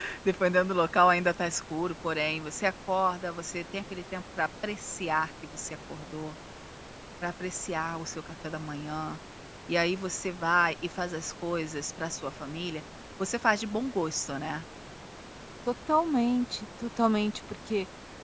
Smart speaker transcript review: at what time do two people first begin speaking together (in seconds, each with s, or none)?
none